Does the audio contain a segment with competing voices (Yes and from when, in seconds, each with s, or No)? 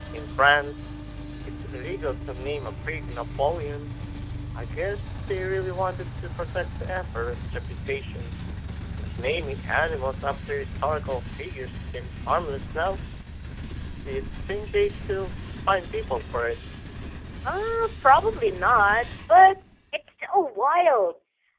No